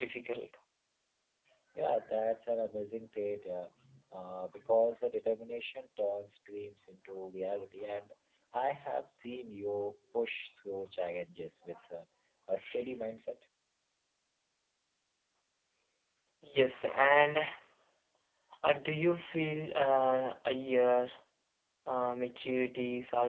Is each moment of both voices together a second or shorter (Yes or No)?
Yes